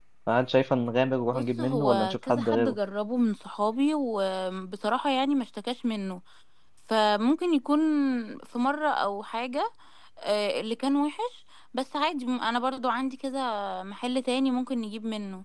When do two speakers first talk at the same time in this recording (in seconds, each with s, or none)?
1.3 s